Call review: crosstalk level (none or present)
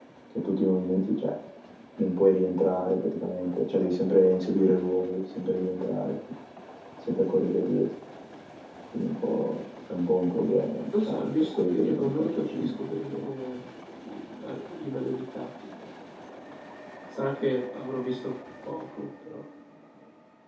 present